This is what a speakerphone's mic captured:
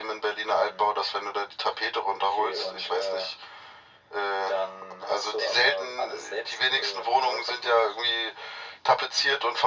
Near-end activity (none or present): none